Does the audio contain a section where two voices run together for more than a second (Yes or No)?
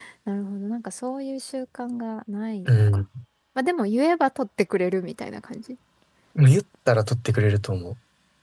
No